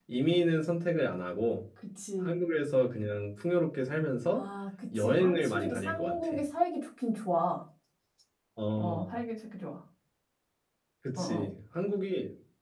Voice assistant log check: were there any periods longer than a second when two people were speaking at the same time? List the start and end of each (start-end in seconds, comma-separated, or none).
5.0-6.4